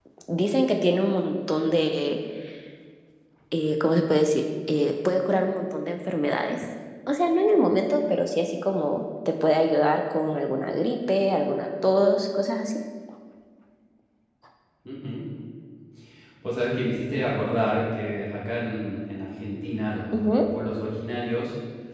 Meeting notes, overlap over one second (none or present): none